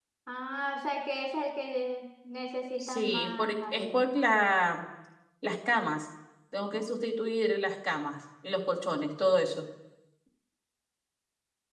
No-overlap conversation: No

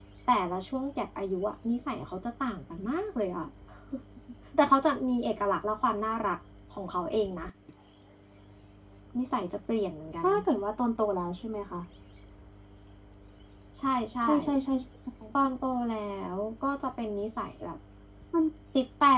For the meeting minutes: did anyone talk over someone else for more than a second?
No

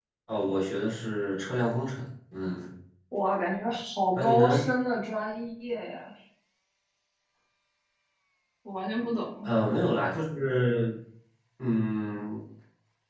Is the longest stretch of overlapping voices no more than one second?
Yes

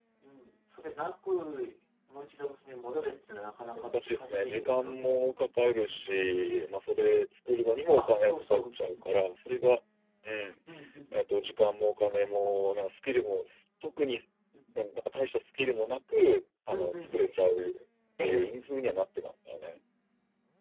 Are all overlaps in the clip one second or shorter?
No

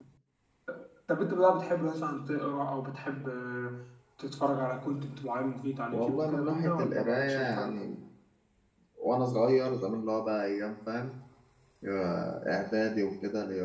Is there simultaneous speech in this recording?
Yes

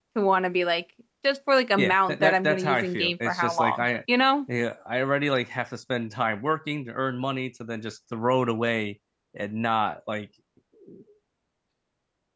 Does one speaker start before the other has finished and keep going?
Yes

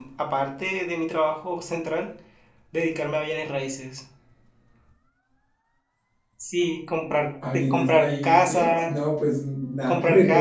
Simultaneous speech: Yes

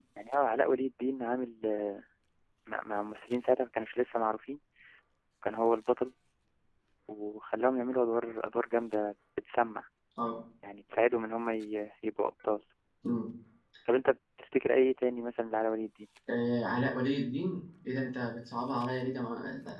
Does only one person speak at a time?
Yes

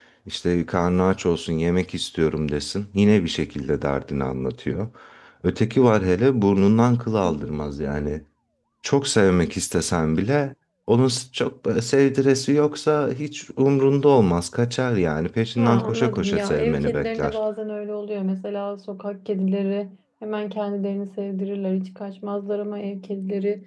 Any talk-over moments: Yes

